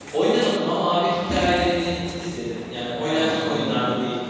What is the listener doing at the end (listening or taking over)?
taking over